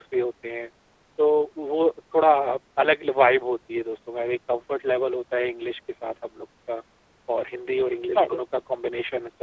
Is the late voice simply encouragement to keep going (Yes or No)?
Yes